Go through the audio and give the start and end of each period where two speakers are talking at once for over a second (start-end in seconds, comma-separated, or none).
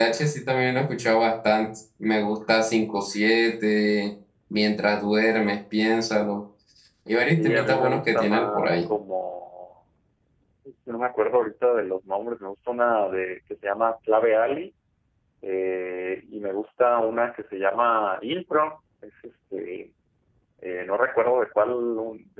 7.4-8.8